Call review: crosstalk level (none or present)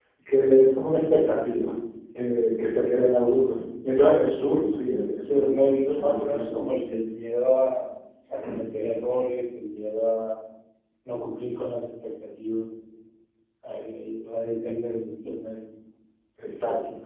present